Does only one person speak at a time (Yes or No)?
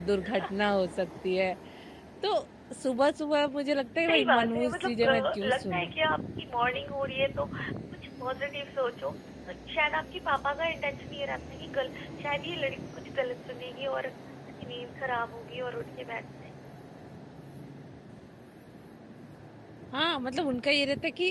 No